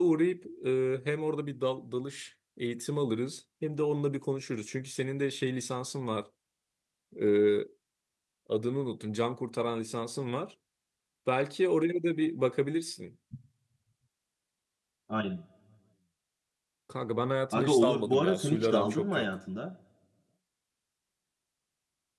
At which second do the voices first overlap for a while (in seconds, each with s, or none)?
17.5 s